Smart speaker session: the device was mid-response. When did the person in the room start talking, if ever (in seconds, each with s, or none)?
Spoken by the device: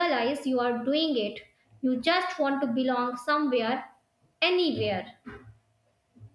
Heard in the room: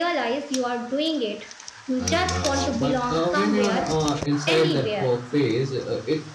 2.0 s